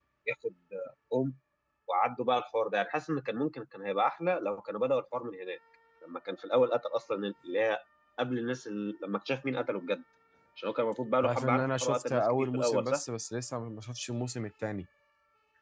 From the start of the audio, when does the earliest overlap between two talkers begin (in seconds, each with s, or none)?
11.2 s